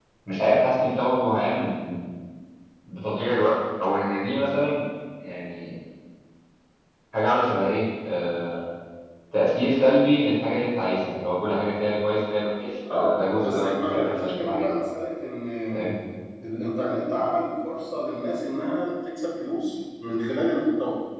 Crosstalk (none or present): present